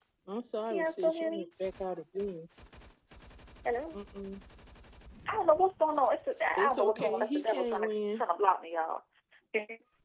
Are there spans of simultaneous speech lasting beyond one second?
Yes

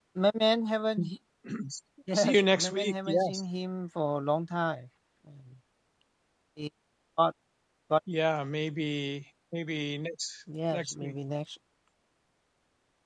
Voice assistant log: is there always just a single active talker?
No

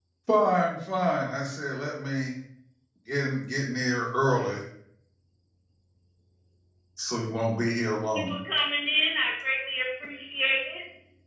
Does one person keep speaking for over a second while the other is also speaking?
No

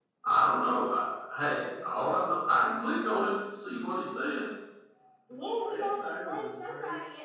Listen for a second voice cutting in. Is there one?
Yes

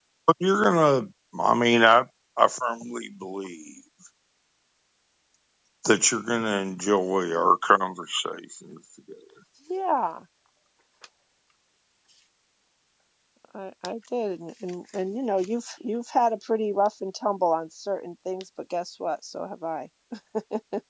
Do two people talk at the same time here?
No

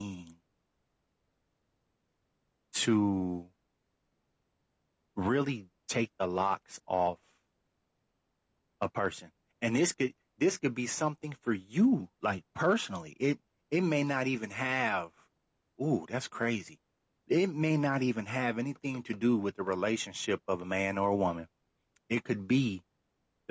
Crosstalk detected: No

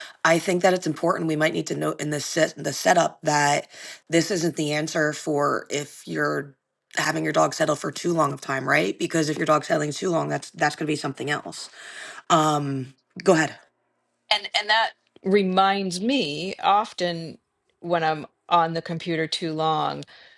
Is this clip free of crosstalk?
Yes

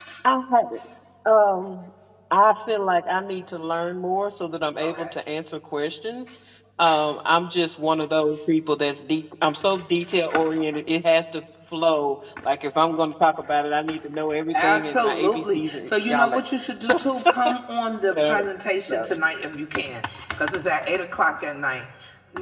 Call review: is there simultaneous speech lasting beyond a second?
Yes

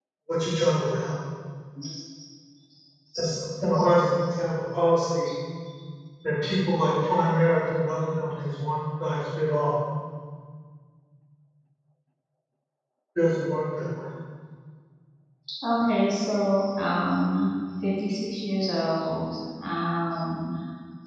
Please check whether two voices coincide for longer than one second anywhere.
No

